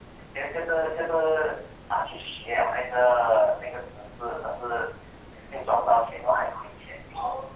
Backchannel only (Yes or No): No